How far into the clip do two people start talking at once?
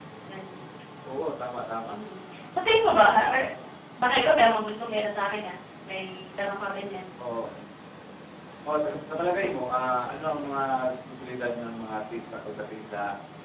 none

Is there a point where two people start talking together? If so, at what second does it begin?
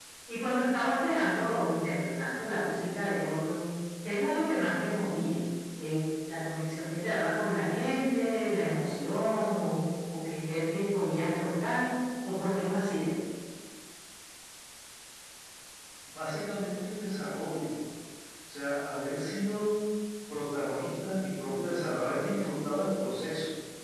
none

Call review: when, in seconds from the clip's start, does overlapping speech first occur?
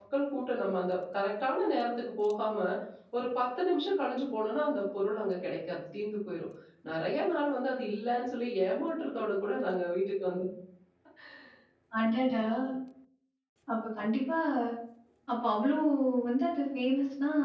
none

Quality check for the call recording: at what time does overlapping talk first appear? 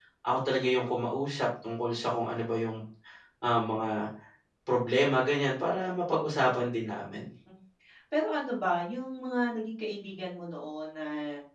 none

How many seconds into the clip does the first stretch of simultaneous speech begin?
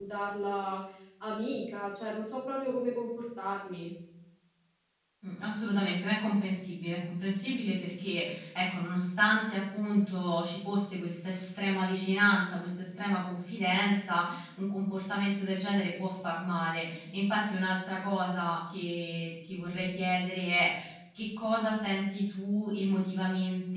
none

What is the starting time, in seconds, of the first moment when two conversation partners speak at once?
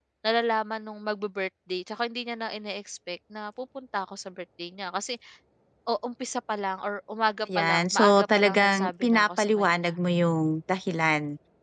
7.5 s

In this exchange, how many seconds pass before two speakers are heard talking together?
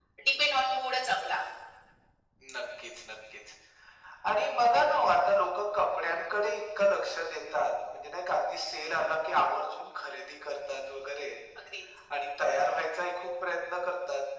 none

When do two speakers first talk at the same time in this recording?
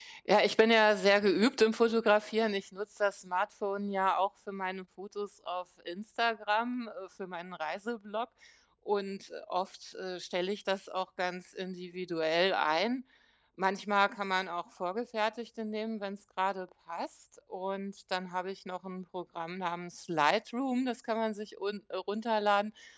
none

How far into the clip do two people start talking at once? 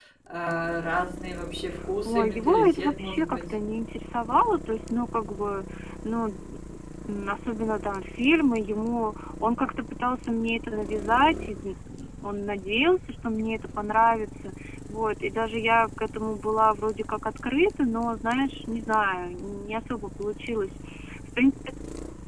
2.0 s

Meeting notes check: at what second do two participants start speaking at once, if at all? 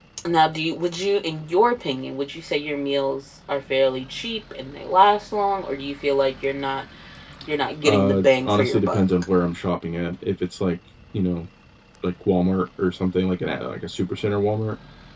7.8 s

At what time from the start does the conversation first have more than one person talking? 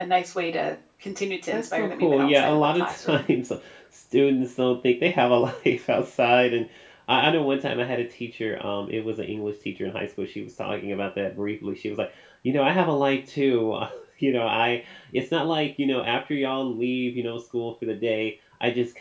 1.5 s

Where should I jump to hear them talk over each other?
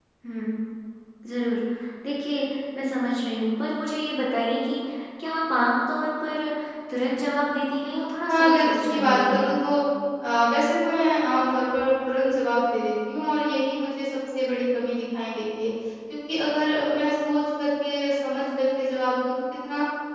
8.3 s

